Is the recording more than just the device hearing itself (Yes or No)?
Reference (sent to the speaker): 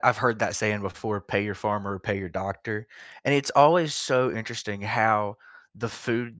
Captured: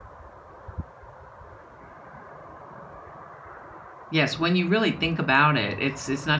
Yes